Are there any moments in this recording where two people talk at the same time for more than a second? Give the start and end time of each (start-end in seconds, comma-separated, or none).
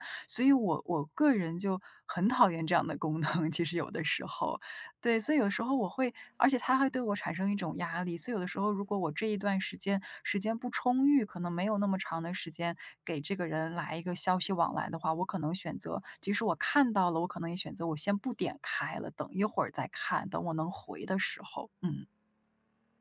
none